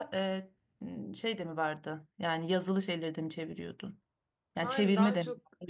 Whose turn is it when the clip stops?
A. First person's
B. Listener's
B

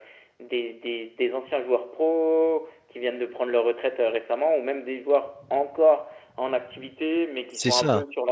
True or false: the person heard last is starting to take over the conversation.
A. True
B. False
B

